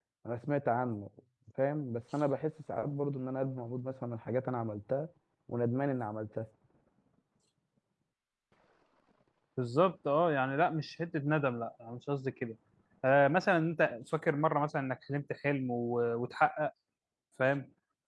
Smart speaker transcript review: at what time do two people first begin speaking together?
none

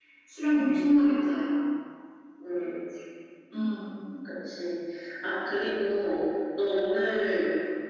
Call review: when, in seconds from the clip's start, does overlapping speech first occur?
none

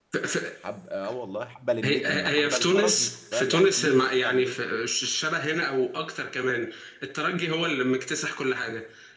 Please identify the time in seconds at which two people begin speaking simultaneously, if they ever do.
1.8 s

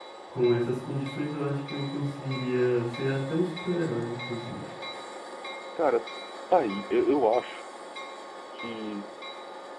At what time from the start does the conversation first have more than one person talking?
none

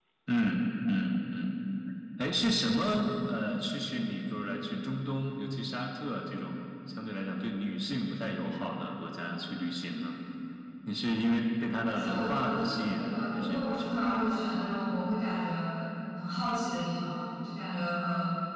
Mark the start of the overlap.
11.8 s

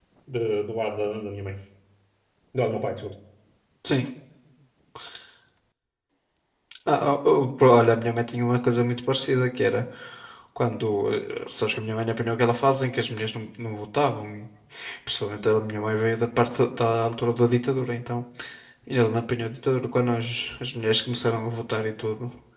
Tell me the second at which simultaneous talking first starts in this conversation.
none

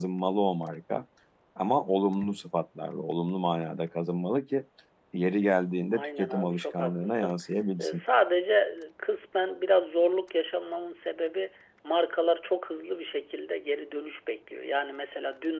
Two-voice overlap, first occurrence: 5.9 s

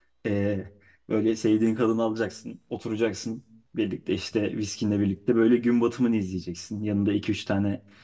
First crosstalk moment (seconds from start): none

